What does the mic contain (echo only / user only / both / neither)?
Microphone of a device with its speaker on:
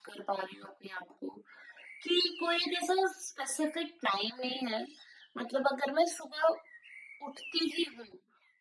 echo only